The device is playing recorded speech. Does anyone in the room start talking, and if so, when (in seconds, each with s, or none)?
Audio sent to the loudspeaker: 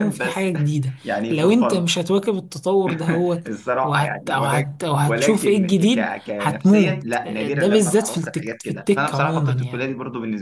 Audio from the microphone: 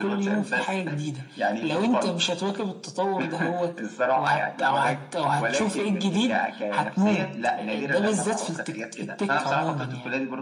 none